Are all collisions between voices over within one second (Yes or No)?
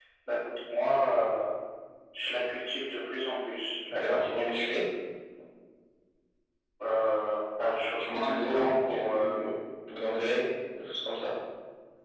No